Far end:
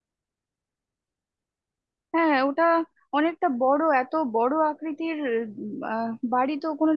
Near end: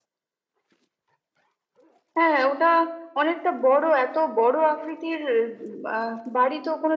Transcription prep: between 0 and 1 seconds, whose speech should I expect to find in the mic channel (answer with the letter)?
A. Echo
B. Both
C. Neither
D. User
C